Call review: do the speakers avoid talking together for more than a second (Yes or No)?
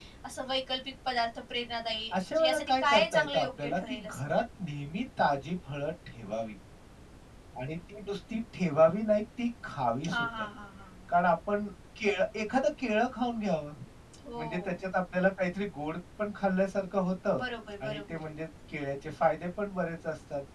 No